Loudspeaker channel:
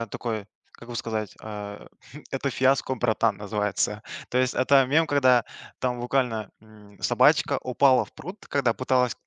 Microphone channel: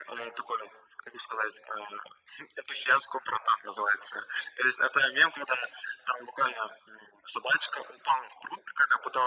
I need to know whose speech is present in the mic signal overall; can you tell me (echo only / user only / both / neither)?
echo only